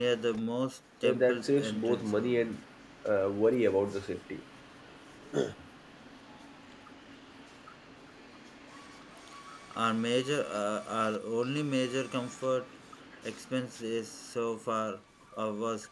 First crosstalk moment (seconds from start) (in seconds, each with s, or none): 1.0 s